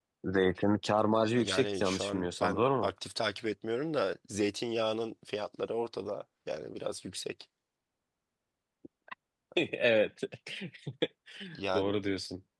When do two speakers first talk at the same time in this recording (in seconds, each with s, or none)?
1.4 s